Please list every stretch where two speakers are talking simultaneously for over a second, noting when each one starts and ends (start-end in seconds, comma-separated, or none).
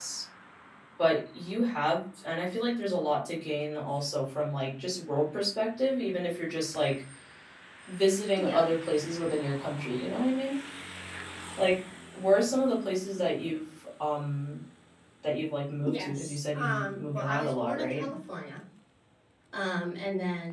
15.9-18.1